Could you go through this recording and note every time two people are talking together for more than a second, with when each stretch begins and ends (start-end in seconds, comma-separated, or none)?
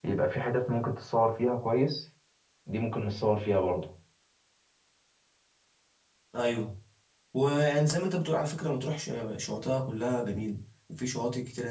none